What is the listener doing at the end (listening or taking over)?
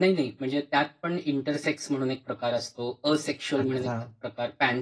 listening